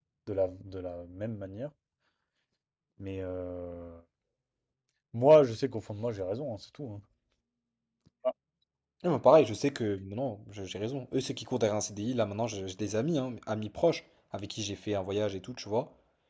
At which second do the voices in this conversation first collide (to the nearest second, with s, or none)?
none